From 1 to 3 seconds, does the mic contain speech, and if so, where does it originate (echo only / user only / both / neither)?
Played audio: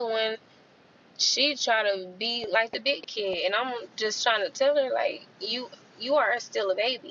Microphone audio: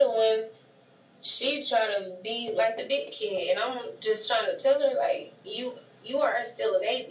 echo only